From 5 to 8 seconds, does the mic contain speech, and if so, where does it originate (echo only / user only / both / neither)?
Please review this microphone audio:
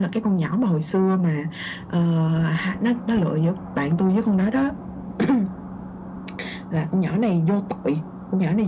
echo only